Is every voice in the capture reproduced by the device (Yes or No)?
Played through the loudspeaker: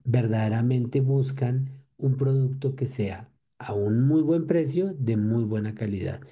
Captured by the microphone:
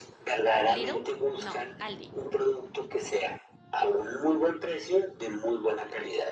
No